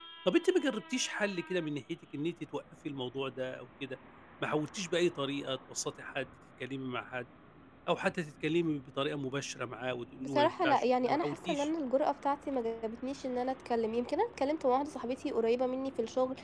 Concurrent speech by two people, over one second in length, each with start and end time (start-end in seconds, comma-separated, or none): 10.2-11.7